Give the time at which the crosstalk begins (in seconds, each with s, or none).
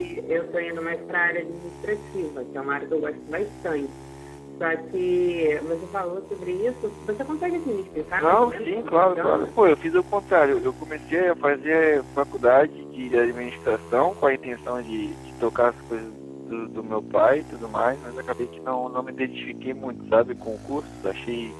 8.2 s